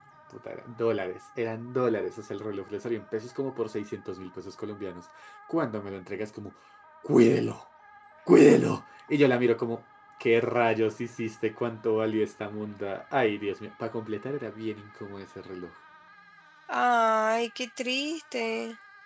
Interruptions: none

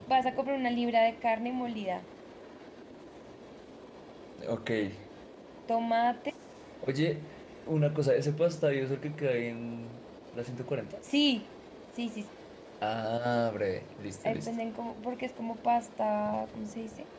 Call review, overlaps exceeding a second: none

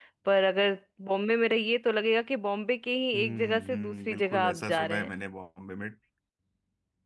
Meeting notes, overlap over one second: present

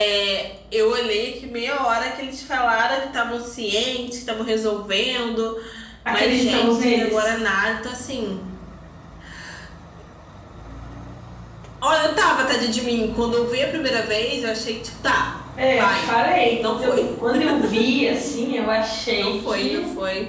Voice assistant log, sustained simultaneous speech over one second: present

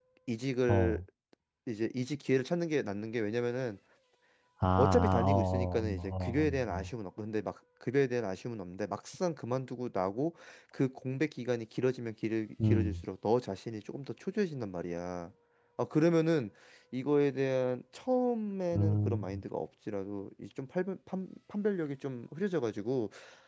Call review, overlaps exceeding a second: present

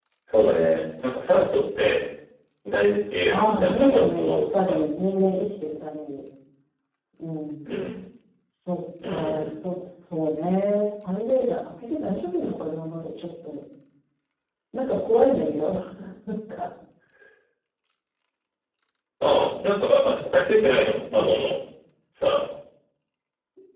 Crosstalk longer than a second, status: present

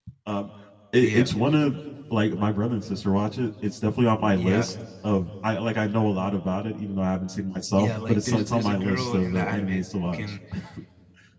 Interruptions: present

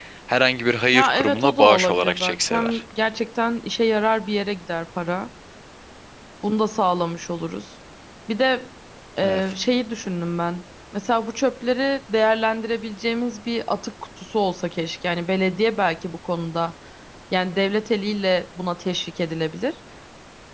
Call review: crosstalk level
present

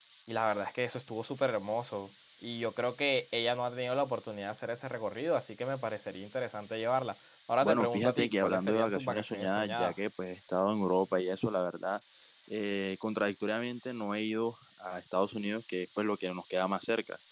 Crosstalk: present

